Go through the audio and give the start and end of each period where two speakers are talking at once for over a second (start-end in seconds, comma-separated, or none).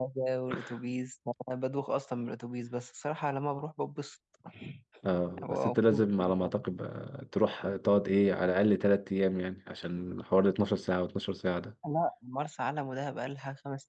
5.4-6.6